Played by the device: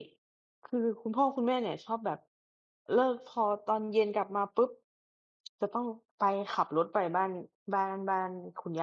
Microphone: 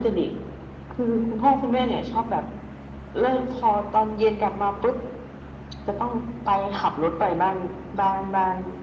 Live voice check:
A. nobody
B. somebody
A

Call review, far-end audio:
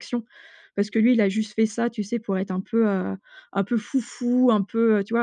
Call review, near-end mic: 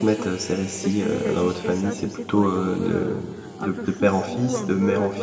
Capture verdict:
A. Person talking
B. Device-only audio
A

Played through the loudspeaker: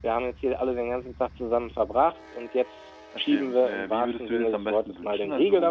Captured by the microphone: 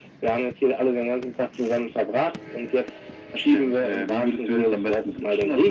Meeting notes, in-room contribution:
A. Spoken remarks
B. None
B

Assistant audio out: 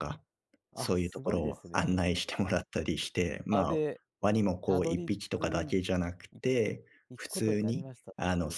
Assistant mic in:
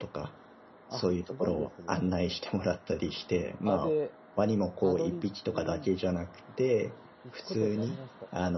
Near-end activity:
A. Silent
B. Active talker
A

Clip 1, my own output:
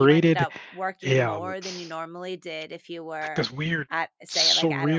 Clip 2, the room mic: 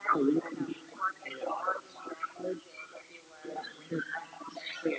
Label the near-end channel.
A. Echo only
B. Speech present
A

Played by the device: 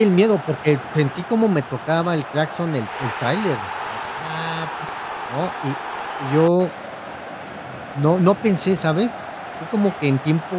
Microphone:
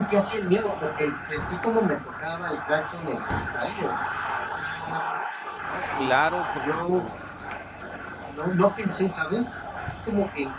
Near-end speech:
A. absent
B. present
B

